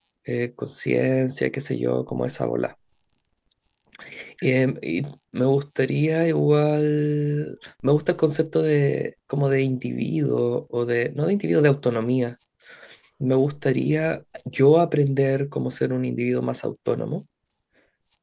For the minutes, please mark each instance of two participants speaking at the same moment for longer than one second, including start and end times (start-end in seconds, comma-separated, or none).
none